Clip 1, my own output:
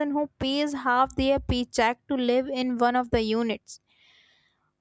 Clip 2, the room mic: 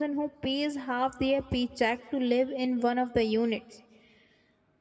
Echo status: present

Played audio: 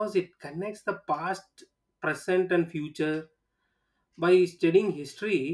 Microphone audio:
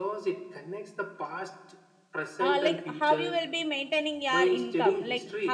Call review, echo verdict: present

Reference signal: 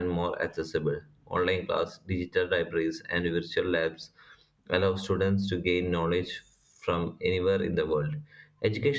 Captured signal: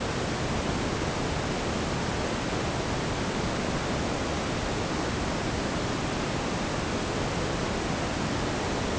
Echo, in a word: none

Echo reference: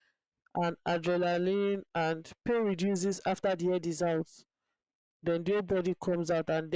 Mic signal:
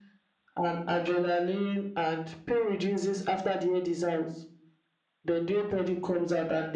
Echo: present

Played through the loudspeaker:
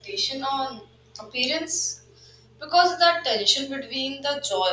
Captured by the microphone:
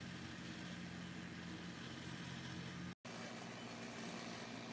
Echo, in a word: none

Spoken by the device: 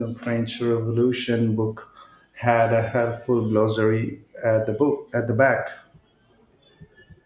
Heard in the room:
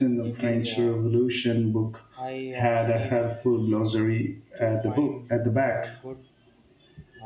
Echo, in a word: present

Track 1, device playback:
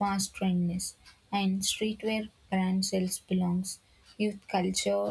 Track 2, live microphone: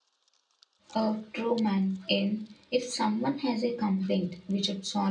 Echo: none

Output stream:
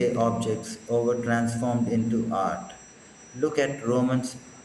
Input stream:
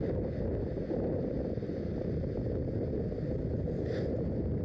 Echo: none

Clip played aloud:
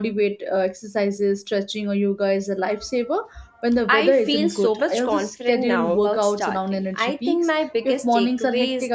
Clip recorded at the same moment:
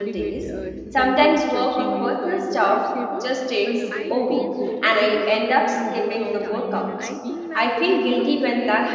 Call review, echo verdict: present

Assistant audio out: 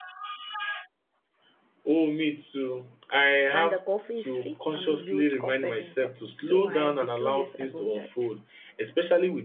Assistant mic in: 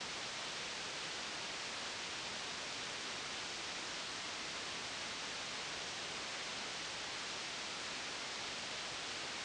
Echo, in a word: none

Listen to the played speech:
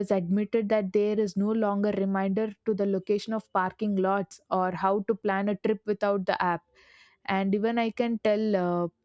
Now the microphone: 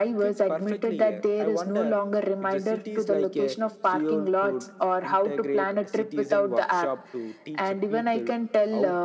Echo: present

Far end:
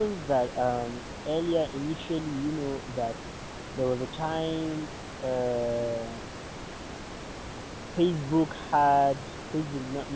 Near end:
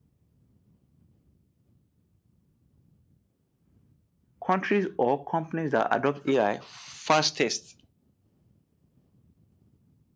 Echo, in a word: none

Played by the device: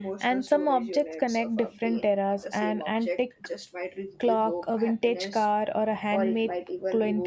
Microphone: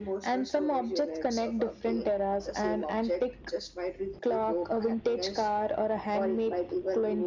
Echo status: present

